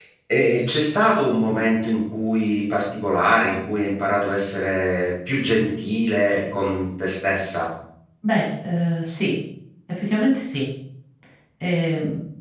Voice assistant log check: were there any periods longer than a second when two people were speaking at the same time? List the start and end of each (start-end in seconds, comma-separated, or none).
none